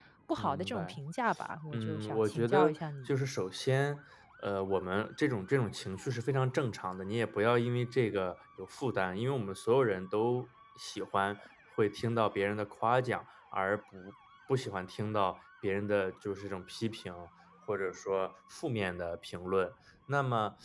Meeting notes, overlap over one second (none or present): present